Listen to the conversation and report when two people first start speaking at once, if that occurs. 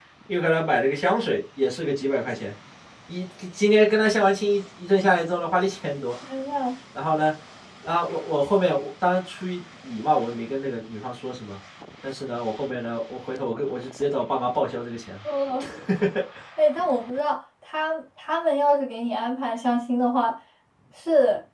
none

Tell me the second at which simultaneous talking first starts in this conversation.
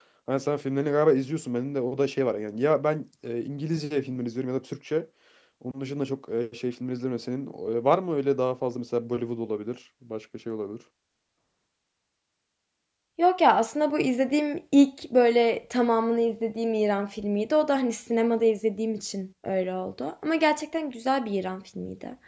none

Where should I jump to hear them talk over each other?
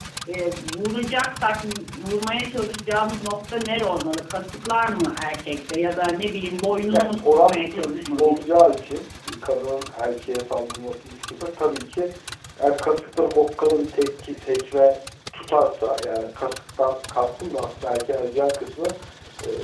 6.9 s

